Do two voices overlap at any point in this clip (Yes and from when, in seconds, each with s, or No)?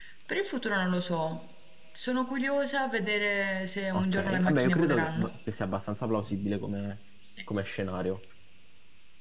Yes, from 3.9 s